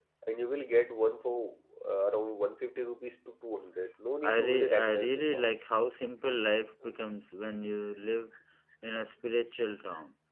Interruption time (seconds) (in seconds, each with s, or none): 4.2 s